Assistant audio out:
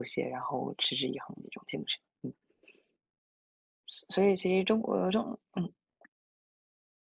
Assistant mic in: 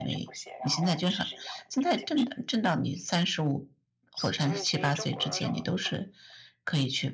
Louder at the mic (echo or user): user